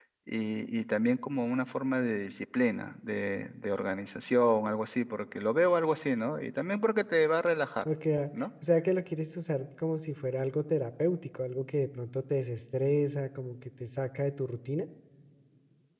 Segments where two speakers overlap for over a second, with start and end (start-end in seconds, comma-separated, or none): none